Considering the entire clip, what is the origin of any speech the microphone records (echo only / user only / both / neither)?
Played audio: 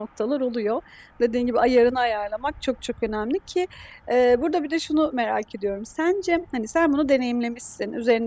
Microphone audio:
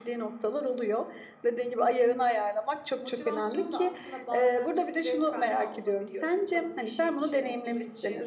both